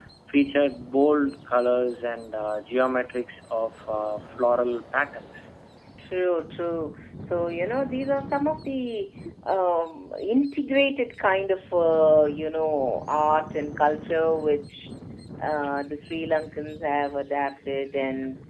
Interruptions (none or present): none